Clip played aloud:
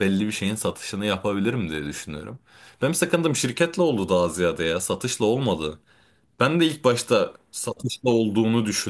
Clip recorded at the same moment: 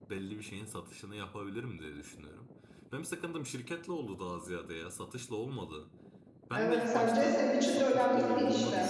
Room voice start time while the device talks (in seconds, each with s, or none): 6.5 s